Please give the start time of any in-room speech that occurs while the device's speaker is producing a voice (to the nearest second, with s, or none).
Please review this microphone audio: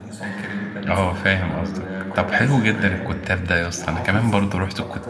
1 s